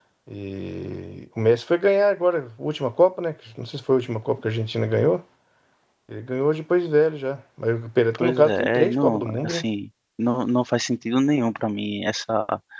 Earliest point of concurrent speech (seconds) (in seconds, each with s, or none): 8.1 s